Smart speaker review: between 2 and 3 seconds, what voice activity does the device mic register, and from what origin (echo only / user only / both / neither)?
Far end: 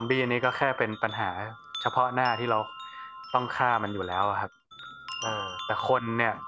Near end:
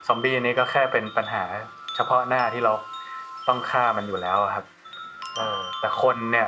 echo only